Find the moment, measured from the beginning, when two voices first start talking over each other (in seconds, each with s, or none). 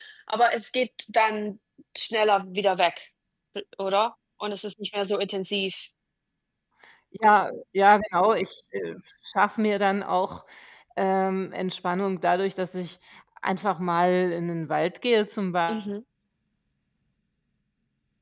none